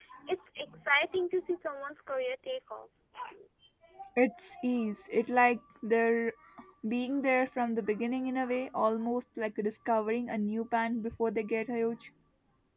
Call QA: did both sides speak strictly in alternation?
Yes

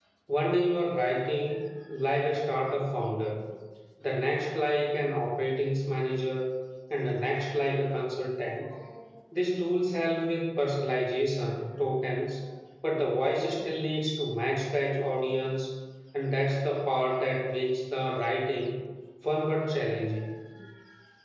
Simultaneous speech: No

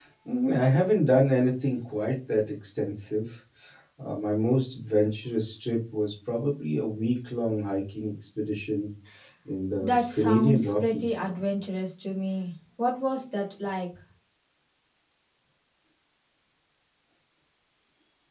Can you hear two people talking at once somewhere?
Yes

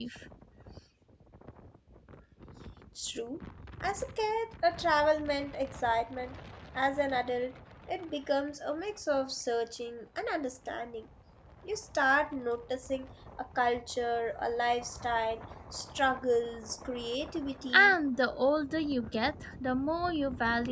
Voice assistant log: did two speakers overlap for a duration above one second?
No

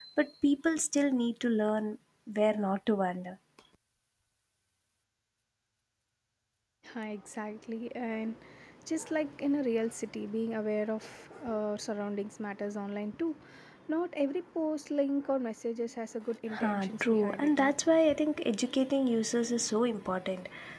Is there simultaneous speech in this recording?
Yes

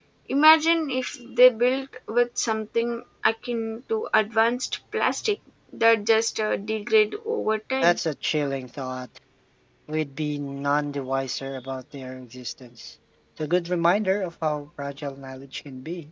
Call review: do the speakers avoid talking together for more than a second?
Yes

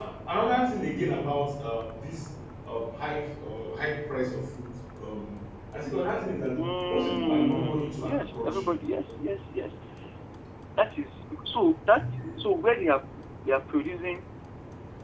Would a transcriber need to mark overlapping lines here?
Yes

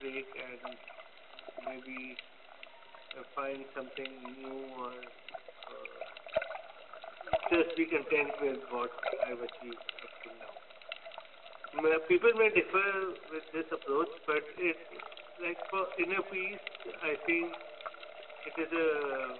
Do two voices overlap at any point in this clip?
No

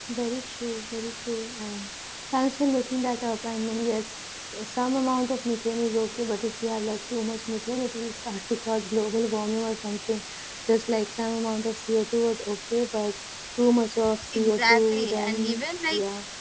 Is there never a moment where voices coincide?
No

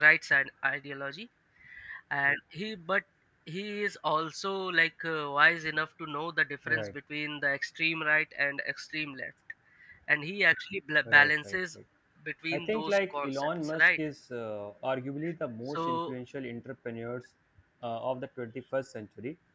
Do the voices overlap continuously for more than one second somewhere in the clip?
Yes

